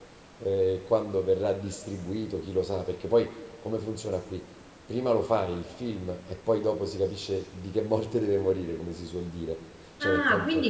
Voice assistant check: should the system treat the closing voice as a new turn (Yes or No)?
Yes